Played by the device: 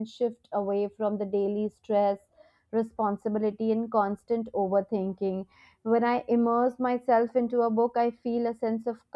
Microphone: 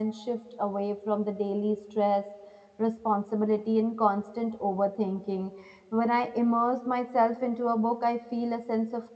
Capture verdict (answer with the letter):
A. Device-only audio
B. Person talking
A